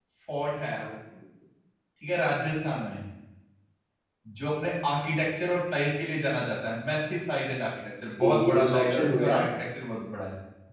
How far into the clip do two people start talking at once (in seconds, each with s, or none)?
8.2 s